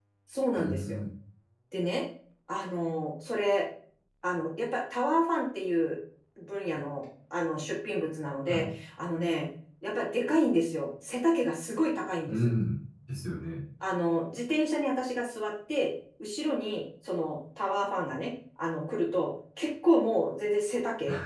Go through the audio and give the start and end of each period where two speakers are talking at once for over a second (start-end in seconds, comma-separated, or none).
none